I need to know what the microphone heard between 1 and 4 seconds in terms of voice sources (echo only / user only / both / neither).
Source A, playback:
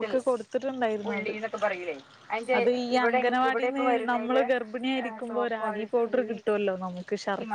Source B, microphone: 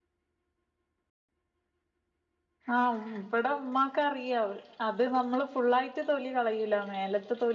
user only